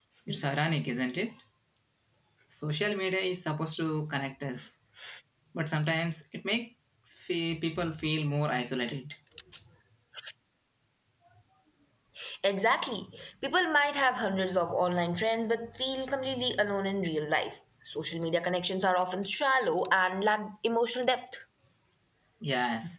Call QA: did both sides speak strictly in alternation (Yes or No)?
Yes